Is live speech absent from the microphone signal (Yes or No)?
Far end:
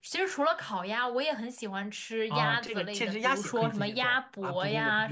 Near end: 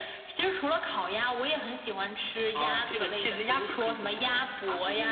Yes